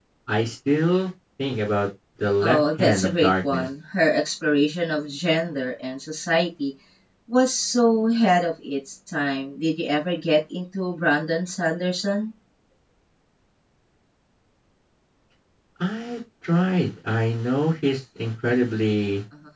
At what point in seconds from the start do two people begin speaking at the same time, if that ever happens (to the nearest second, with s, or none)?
2 s